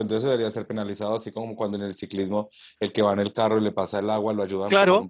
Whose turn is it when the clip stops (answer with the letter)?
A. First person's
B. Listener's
B